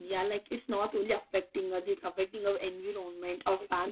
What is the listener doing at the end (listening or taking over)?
listening